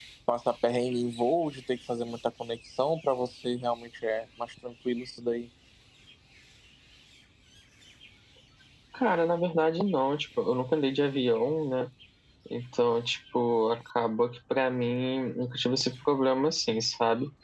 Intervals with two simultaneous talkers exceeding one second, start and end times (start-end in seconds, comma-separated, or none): none